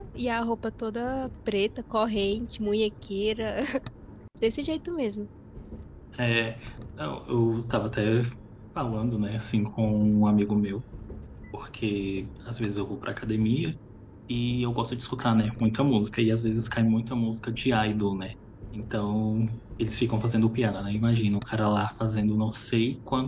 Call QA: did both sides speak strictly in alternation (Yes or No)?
Yes